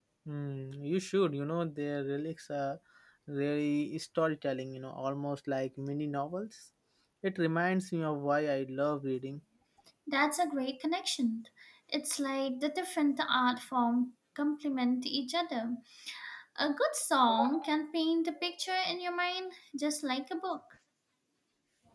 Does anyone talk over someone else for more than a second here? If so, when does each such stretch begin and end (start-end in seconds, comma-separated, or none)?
none